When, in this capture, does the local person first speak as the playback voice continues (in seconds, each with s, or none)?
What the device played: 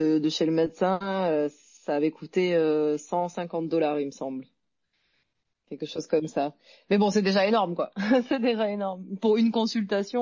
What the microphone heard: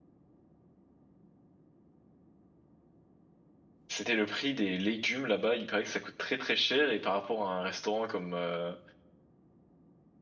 3.9 s